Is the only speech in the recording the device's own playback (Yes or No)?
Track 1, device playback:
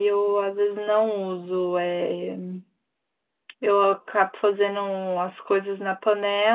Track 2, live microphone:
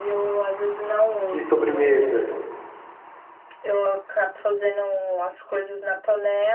No